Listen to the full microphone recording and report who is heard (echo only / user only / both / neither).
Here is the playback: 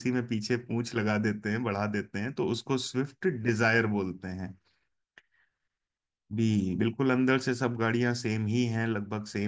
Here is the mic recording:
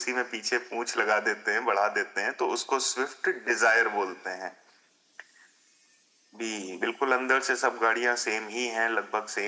echo only